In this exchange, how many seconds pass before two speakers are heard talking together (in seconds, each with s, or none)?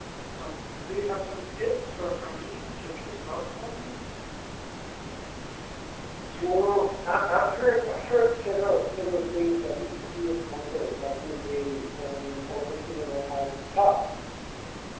none